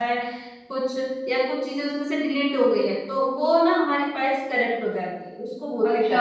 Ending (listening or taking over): taking over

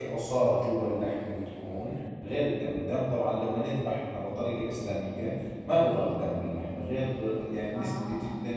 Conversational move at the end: listening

